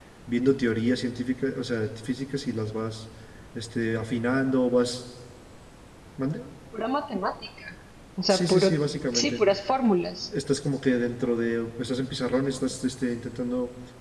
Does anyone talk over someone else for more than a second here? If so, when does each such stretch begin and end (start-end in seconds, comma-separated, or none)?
none